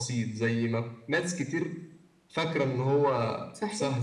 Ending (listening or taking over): taking over